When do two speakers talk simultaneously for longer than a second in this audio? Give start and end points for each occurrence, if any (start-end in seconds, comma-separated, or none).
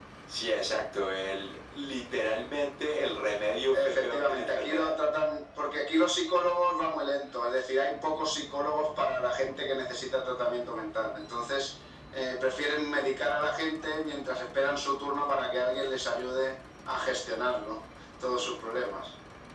3.7-5.0